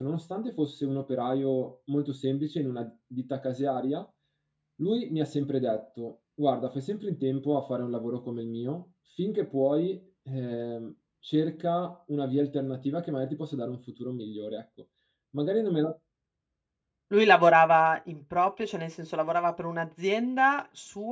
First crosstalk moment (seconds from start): none

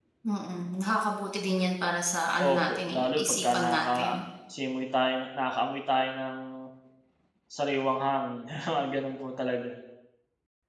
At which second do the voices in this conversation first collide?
2.4 s

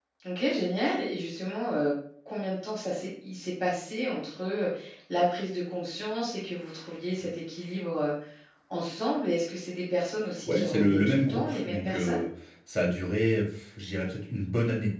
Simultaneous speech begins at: 10.5 s

